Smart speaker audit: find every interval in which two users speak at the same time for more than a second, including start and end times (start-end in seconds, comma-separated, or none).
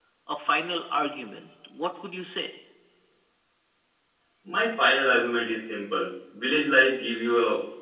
none